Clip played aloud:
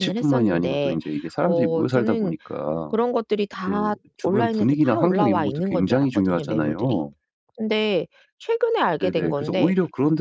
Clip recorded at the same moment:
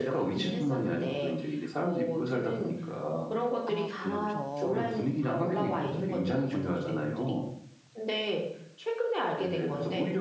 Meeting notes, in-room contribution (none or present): present